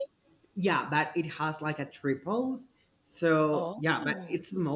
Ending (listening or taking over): listening